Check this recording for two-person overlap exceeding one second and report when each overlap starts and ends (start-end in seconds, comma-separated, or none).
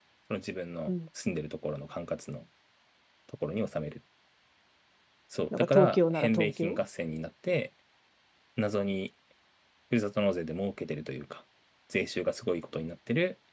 5.6-6.8